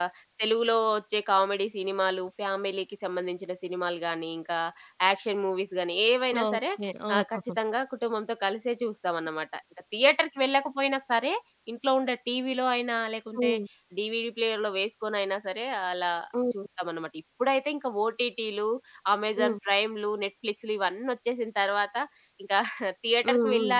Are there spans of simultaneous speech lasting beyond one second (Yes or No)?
No